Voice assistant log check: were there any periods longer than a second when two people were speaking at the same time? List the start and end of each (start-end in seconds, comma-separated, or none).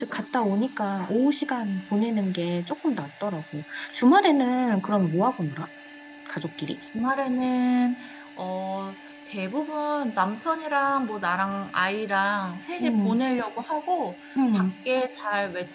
none